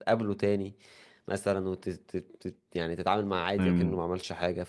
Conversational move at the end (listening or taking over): listening